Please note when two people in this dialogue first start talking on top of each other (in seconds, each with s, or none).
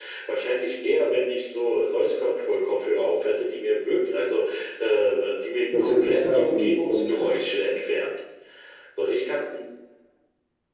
5.7 s